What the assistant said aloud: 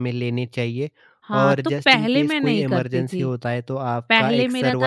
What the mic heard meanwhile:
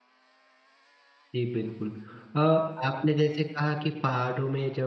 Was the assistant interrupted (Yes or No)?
Yes